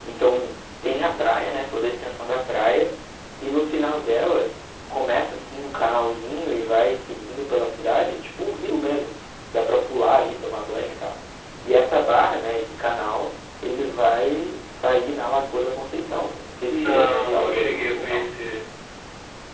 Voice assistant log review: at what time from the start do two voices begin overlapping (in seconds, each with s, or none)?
16.7 s